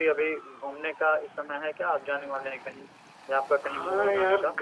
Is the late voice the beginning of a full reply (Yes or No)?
Yes